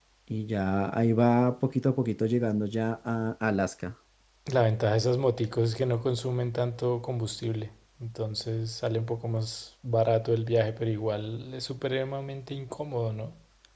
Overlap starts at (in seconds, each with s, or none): none